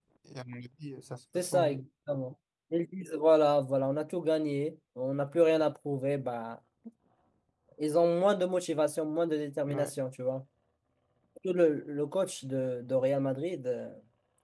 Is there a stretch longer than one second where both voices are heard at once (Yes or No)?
No